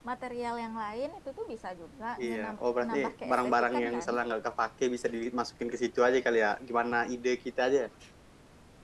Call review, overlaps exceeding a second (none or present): present